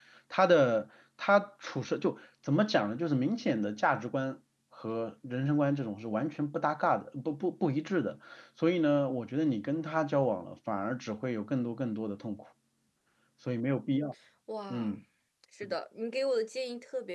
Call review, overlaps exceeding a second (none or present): none